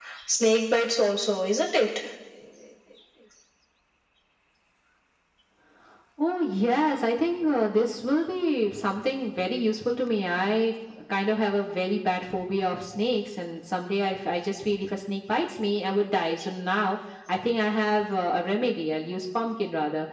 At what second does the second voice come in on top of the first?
none

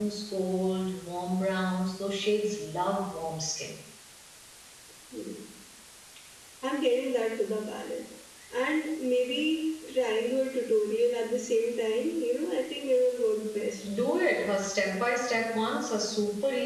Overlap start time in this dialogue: none

